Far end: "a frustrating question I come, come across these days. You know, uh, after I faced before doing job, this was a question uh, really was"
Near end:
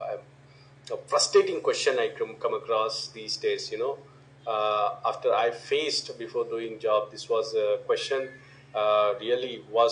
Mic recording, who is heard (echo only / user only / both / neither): echo only